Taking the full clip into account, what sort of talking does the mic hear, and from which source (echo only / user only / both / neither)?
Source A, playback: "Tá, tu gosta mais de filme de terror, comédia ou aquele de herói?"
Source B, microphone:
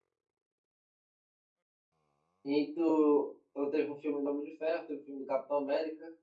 user only